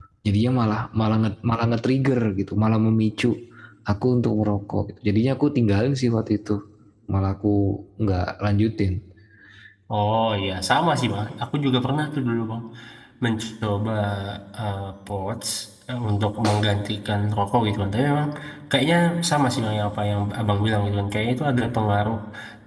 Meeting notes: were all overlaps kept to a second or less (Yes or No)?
Yes